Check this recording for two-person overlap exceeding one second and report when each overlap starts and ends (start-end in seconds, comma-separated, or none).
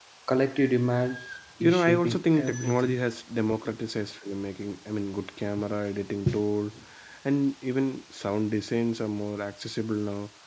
1.6-3.0